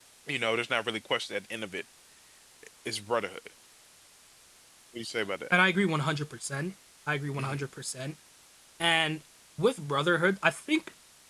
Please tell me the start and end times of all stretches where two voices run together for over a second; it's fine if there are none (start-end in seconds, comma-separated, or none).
none